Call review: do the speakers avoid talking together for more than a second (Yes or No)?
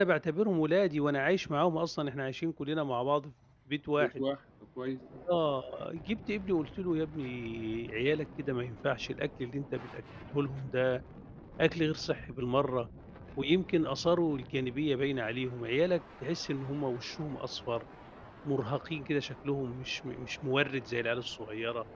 Yes